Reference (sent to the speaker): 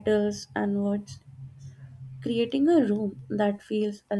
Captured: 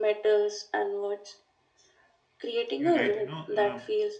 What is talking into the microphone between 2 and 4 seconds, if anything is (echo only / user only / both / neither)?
both